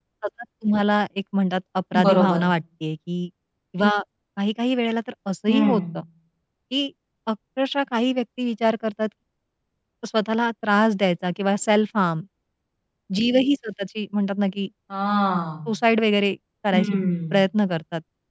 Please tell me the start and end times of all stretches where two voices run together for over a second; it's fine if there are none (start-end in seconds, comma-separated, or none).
none